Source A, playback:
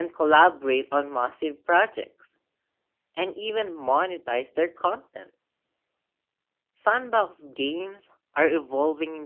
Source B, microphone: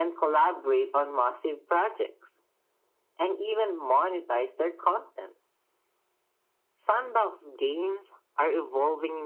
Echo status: present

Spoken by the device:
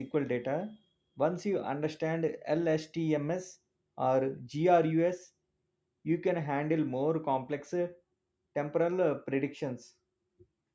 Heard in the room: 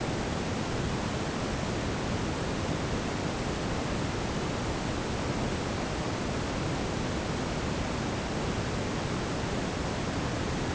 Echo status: none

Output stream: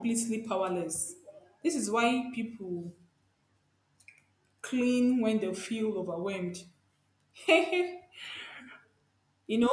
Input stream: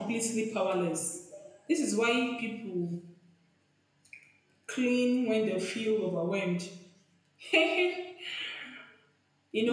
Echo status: present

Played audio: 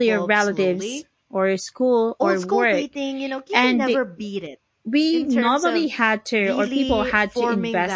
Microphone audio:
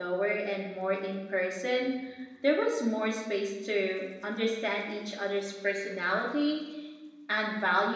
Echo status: none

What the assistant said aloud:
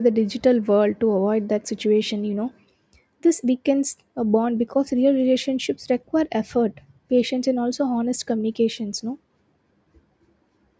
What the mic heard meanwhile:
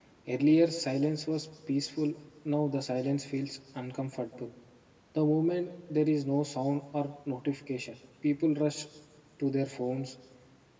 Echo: none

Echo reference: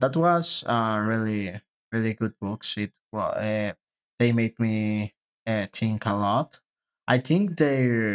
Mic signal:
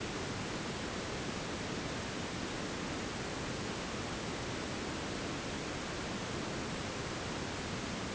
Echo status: none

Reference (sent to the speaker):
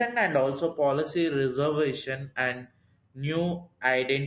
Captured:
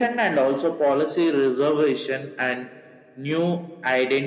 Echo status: present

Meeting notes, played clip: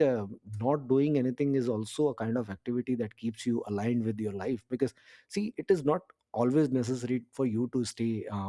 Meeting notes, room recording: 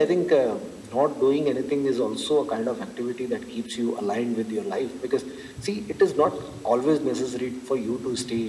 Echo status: present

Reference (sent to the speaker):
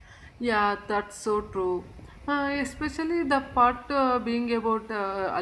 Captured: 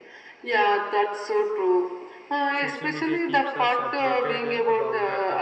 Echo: present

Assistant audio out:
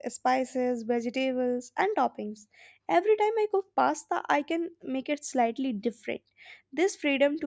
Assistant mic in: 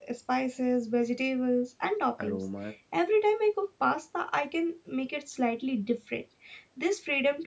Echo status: present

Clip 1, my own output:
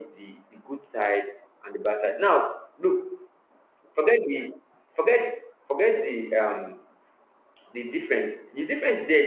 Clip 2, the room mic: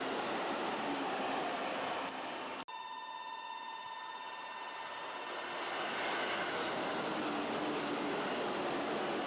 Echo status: none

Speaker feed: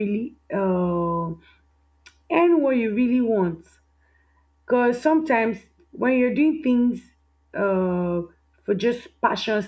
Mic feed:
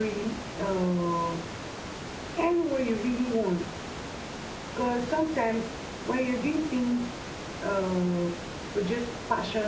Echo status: present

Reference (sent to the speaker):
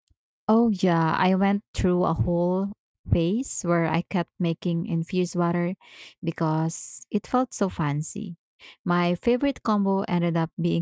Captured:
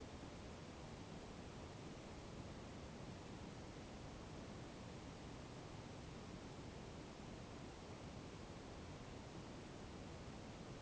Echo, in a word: none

